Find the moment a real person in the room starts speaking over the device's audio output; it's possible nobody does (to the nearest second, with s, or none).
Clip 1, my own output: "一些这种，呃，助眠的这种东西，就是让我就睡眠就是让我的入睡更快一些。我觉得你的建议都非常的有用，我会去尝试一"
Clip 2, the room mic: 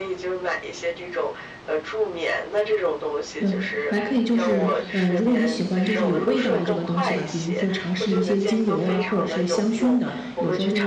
3 s